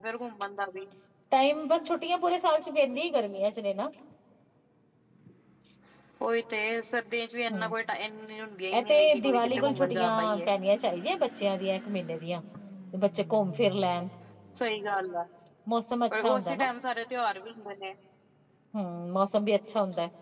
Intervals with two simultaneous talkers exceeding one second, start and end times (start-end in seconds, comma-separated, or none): 8.8-10.4